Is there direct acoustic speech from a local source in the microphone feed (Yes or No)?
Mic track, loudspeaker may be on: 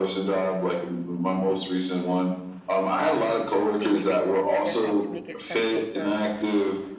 Yes